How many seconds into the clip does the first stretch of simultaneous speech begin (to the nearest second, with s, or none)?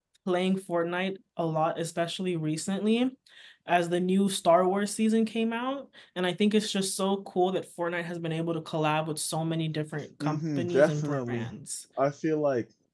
10 s